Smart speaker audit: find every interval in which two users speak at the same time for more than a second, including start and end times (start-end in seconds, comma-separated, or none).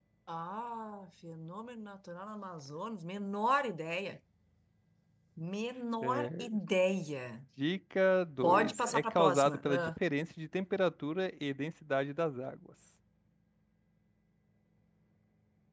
8.4-10.0